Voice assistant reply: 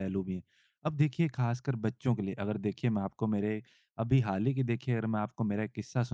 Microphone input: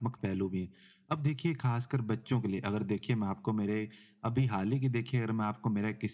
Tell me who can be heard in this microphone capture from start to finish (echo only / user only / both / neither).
echo only